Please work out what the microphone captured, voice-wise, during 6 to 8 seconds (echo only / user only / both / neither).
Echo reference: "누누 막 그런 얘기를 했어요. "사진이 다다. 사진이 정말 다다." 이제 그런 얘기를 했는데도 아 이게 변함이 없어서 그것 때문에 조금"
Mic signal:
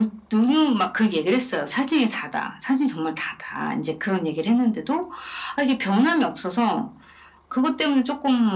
echo only